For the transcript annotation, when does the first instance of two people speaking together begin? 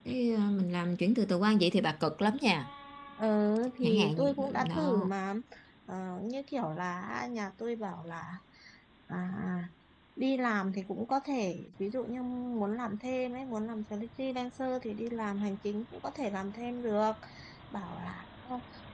4 s

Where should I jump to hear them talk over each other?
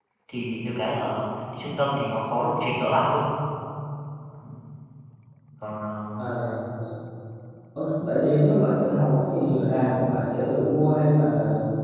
none

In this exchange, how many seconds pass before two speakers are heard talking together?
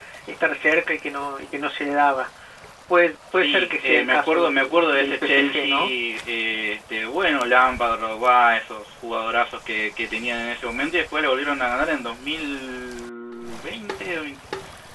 3 s

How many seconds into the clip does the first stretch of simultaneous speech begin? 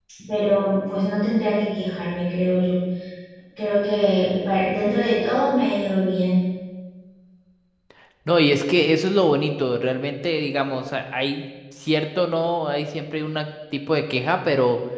none

